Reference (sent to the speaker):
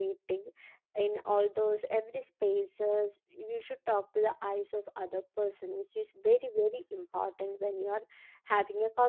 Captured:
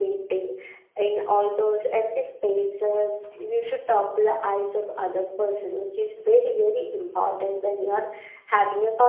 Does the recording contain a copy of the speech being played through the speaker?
Yes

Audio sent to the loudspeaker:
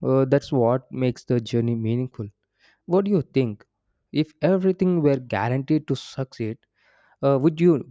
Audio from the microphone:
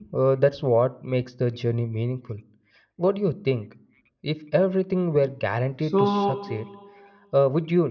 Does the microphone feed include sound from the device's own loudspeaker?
Yes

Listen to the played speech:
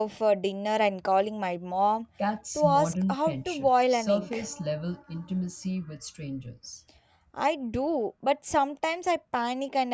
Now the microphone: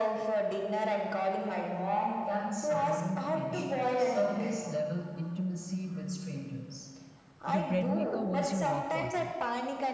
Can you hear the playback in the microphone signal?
Yes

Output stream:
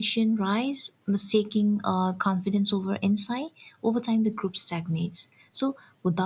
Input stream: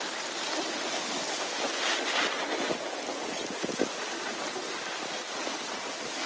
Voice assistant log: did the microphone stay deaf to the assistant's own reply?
Yes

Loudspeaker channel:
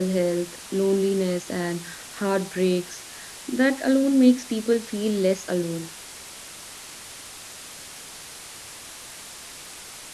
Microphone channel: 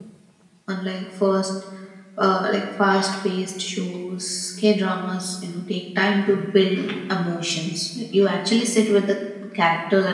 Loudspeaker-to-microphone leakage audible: No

